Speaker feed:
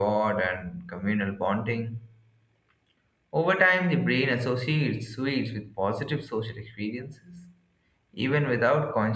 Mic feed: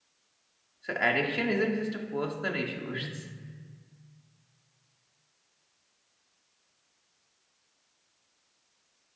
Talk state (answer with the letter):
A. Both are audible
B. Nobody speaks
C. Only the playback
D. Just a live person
D